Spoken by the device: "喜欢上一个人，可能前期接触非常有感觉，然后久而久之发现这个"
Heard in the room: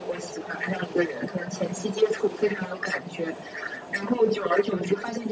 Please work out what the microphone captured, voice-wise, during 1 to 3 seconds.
echo only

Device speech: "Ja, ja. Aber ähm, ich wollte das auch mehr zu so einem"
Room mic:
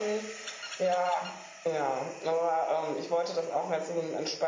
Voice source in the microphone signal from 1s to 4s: echo only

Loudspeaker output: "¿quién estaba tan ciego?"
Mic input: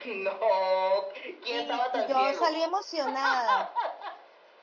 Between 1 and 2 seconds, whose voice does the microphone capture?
both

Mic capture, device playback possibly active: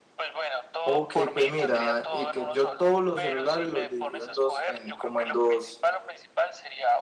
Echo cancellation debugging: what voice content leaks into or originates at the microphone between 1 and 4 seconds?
both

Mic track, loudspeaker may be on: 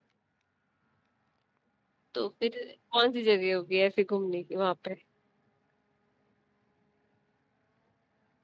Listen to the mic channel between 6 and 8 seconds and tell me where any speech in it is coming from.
neither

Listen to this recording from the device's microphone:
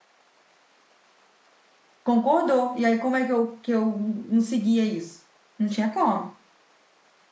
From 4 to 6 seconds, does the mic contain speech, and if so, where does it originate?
user only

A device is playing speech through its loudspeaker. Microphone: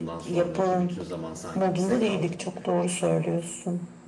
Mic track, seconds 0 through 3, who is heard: both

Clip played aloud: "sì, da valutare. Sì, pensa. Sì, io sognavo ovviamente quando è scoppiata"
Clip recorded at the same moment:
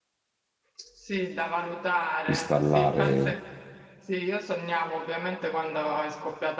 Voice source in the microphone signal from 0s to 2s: echo only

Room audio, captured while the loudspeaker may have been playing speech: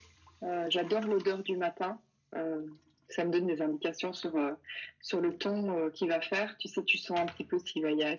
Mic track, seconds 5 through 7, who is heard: echo only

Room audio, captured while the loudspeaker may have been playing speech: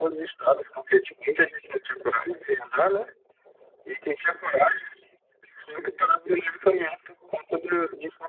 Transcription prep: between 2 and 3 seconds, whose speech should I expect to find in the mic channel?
echo only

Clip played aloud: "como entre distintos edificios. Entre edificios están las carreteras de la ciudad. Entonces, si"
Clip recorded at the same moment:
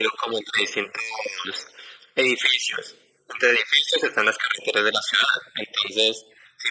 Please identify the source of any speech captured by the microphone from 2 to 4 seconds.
echo only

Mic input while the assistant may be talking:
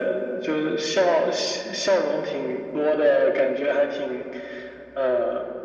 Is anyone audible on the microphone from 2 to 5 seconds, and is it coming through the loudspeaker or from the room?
echo only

